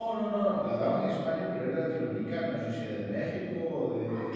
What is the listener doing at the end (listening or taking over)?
listening